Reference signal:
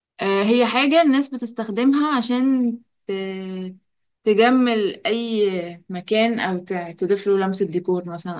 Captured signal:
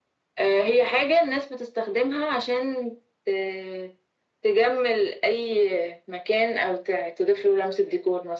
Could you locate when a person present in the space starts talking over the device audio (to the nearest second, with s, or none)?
none